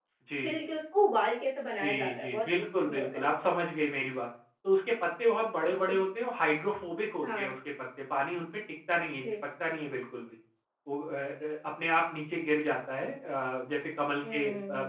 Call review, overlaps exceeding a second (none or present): present